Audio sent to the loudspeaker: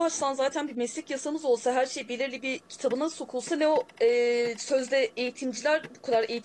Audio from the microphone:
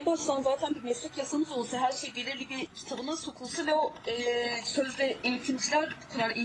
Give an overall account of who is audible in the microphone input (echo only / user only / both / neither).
echo only